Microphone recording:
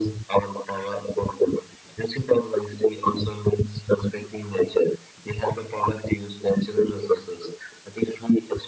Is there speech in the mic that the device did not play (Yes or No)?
No